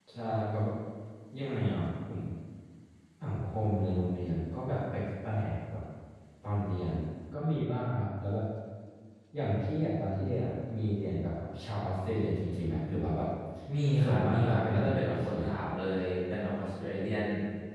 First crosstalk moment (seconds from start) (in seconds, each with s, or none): 14.0 s